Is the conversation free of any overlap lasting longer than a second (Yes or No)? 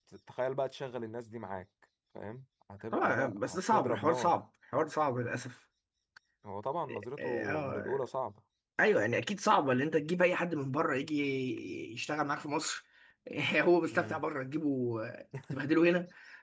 No